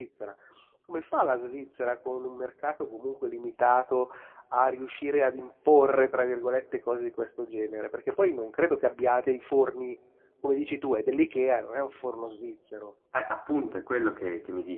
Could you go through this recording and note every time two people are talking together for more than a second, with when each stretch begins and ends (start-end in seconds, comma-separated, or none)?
none